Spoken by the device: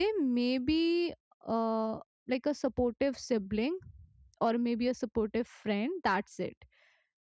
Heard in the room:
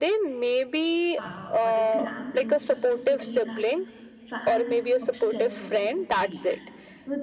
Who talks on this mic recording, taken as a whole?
both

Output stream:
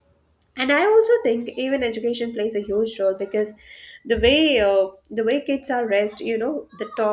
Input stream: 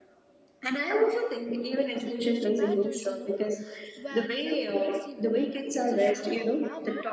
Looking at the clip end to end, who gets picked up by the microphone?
both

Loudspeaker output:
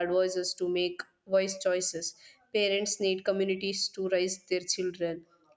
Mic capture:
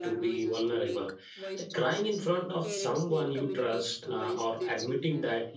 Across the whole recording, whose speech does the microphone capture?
both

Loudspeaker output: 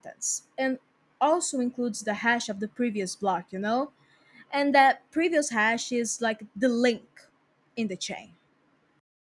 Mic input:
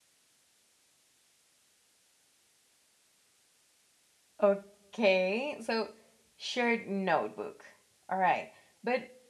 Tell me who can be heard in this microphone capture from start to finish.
user only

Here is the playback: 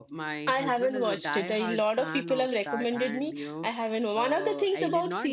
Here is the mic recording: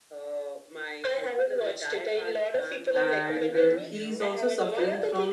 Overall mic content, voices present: both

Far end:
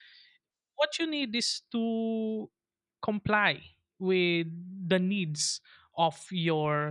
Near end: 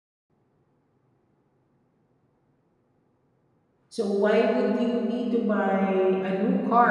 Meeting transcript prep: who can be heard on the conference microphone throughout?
user only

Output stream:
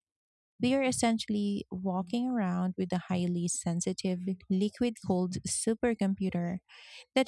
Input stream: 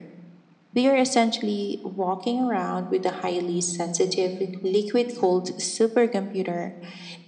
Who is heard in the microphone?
echo only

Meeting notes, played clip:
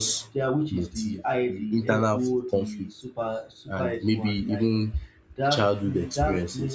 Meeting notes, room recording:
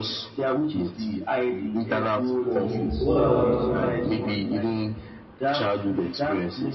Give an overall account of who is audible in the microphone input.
both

